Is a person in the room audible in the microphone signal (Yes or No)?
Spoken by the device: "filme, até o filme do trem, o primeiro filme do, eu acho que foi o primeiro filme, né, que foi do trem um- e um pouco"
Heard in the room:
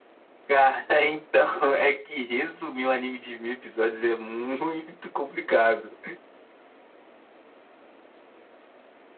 Yes